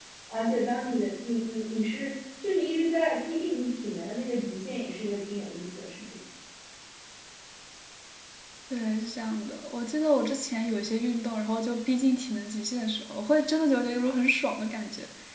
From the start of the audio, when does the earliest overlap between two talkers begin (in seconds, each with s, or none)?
none